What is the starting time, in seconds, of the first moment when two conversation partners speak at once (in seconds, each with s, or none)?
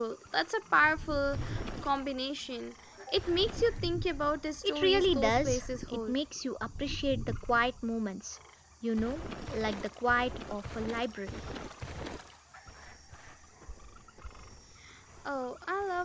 4.6 s